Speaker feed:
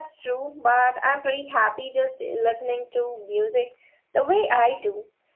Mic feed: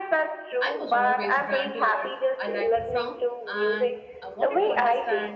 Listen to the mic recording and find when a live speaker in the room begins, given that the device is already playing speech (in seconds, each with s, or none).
0.6 s